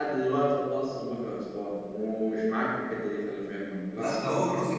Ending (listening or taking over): taking over